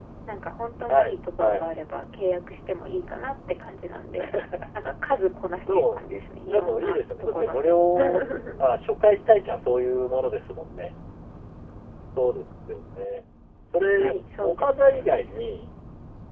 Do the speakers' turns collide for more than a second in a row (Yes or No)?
Yes